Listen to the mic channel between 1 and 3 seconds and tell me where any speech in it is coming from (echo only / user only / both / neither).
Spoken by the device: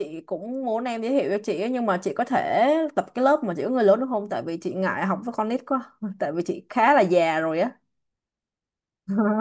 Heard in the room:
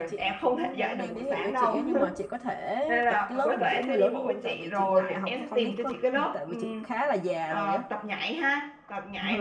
both